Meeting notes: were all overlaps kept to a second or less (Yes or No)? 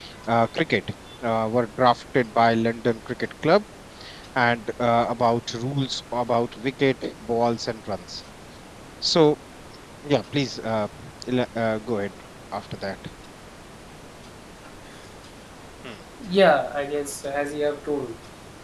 Yes